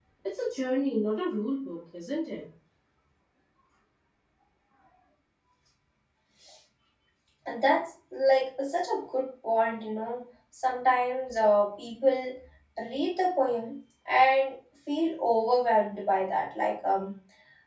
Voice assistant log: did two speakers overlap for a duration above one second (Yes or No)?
No